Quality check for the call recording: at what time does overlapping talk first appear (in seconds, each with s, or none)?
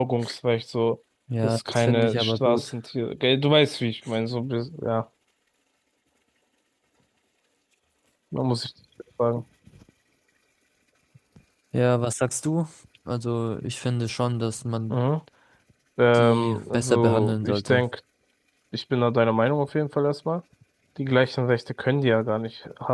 1.4 s